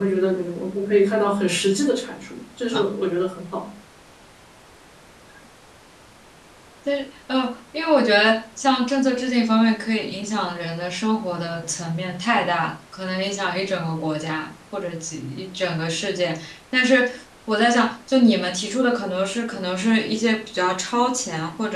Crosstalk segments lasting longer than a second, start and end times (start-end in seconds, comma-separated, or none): none